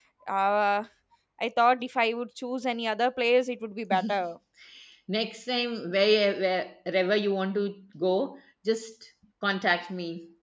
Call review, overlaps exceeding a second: none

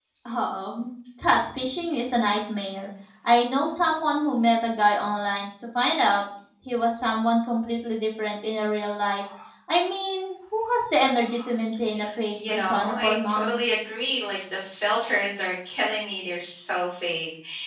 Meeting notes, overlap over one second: present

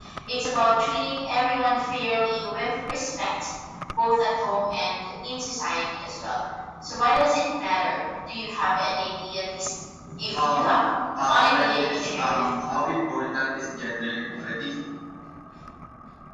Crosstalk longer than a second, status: present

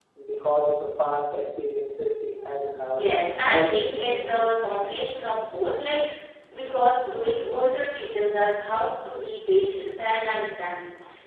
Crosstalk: present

